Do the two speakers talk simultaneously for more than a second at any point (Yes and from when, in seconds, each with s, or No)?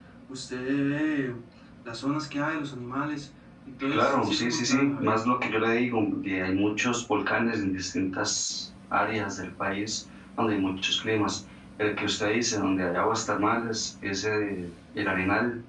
Yes, from 3.8 s